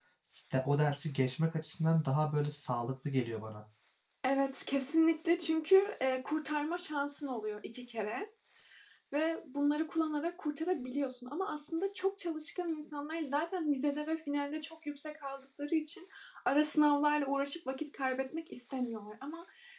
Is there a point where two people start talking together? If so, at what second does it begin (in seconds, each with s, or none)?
none